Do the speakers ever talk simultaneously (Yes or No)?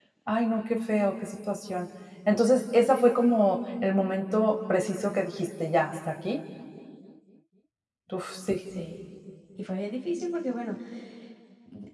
No